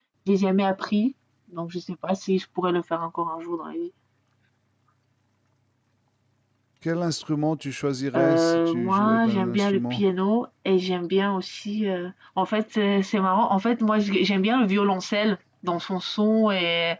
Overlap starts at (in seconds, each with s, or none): 8.1 s